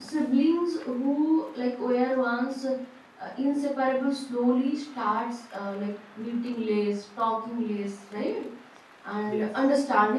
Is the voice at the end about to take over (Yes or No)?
No